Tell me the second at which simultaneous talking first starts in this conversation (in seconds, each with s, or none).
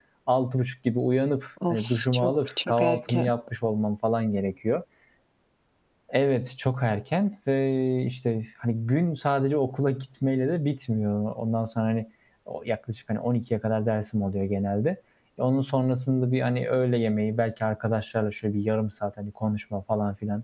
1.6 s